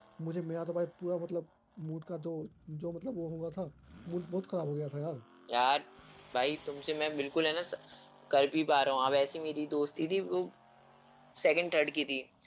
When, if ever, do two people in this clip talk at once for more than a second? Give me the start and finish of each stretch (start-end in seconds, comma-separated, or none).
none